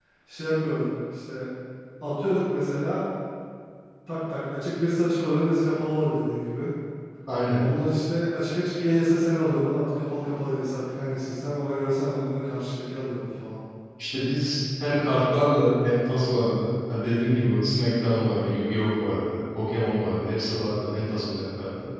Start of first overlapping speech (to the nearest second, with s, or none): none